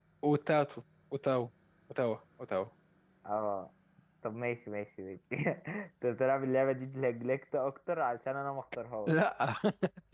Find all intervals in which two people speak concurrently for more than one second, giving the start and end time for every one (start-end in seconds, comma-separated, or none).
none